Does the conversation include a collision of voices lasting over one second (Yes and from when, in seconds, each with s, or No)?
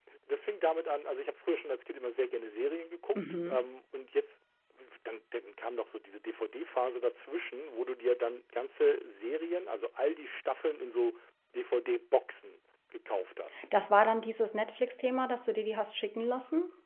No